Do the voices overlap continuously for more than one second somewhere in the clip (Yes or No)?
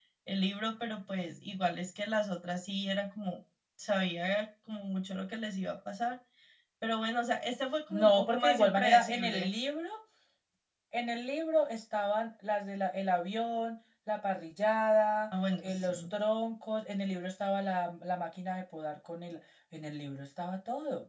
Yes